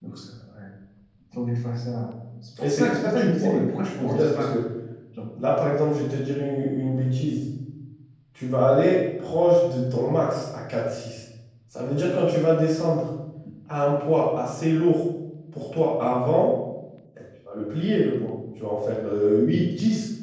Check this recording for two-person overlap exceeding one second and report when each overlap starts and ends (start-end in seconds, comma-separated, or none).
2.6-4.6